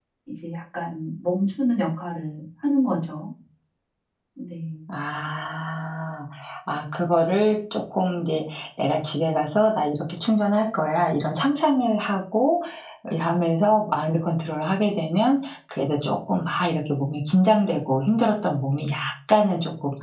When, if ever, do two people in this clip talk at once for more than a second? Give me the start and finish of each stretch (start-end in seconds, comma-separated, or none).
none